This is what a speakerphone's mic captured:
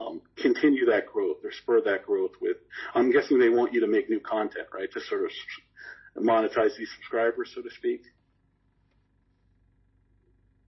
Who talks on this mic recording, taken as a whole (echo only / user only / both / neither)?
echo only